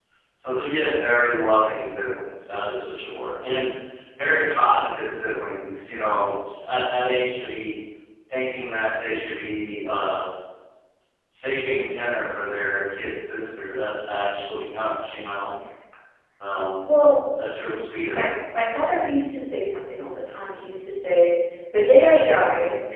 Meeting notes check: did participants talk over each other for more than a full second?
No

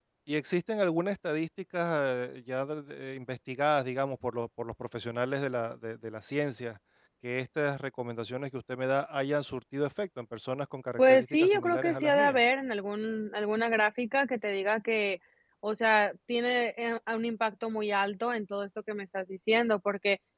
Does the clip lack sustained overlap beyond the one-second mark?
No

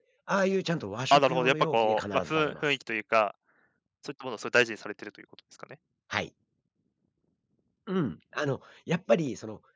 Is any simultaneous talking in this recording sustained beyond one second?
Yes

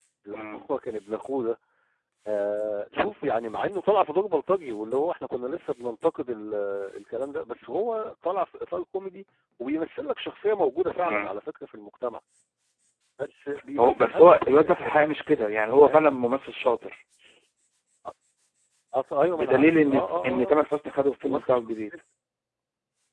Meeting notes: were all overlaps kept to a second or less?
No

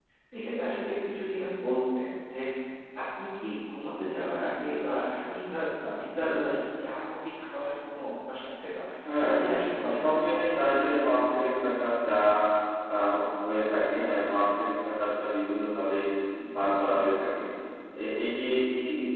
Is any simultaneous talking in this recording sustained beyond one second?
Yes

